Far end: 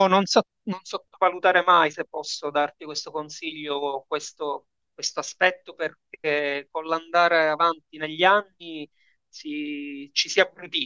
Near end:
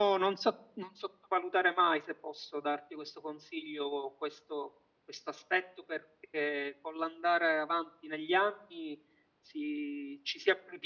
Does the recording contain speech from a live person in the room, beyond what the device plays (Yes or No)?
No